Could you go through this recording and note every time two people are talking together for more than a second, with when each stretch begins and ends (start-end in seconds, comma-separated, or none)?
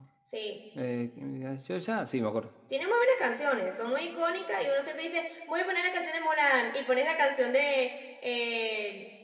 none